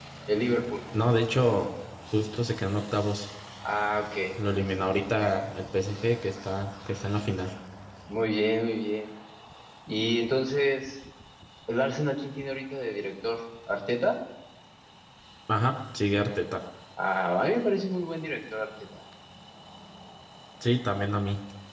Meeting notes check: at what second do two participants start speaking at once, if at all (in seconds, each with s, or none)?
none